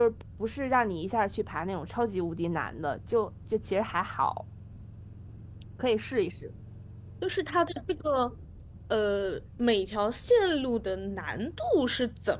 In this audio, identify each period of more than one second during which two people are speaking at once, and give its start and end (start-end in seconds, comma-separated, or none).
none